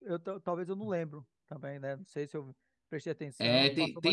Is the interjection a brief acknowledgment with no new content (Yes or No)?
No